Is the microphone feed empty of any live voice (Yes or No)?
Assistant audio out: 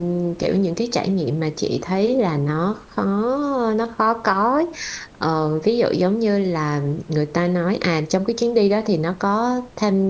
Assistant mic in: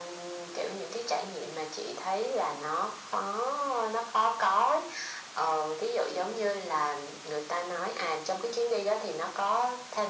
Yes